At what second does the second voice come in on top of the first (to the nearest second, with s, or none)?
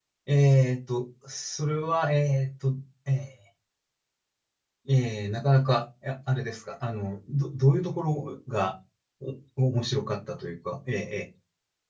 none